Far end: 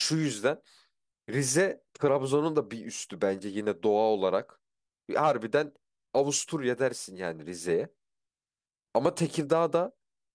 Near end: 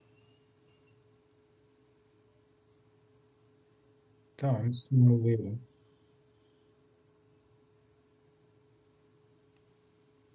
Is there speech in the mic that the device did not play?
Yes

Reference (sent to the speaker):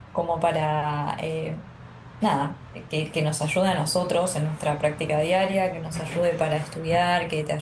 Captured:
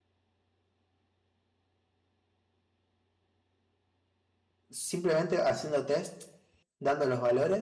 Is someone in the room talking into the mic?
Yes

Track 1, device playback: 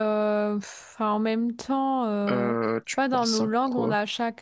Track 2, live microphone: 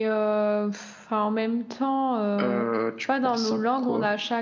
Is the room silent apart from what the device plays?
Yes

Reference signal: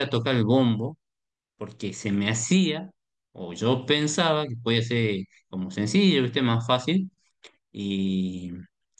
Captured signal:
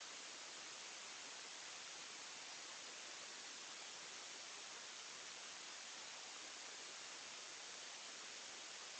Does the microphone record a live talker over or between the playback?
No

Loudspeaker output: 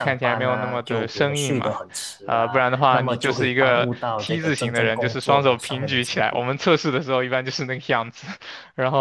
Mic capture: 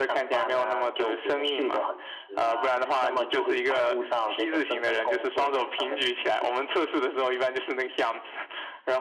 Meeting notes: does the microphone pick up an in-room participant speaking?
No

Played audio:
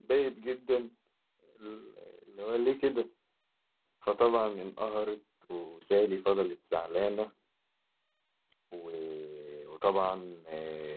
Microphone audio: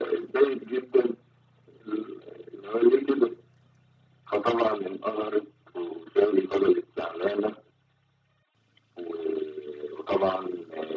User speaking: No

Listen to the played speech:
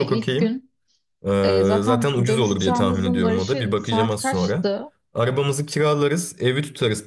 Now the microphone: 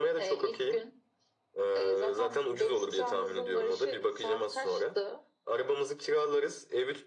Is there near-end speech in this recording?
No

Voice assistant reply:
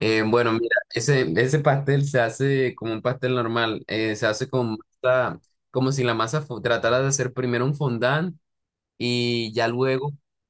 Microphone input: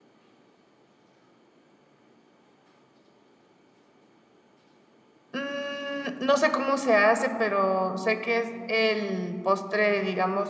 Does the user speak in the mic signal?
Yes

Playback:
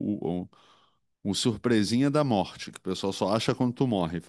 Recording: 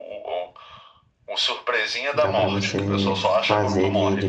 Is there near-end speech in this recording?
Yes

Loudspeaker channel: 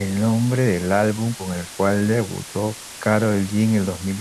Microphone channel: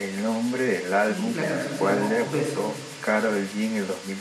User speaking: Yes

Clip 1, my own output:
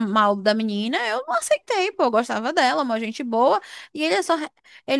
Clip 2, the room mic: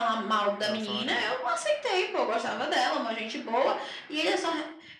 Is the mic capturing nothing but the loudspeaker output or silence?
No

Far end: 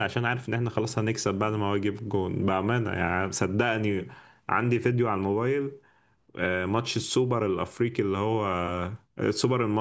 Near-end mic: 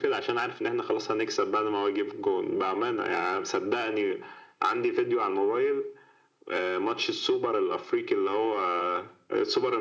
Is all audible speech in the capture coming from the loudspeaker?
Yes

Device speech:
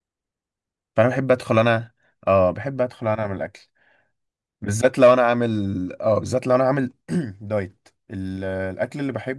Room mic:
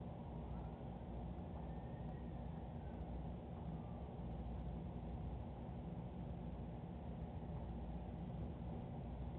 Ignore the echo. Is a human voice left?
No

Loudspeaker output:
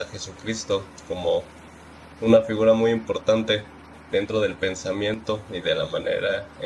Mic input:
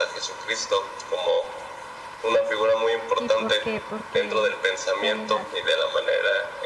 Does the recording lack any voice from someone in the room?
No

